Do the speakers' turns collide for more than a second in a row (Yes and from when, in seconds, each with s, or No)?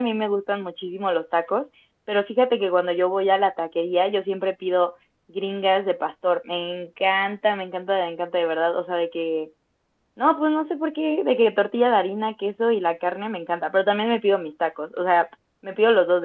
No